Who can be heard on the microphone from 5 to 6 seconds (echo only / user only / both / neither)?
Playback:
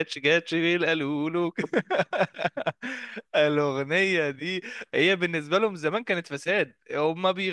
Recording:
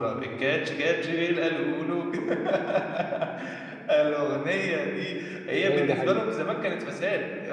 both